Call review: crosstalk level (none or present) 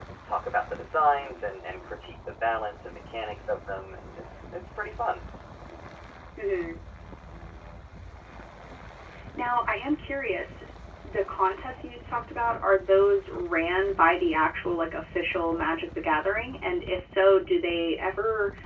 none